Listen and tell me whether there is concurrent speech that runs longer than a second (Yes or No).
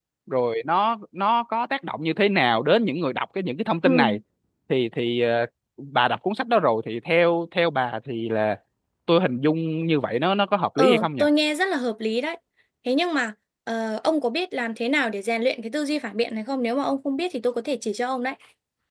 No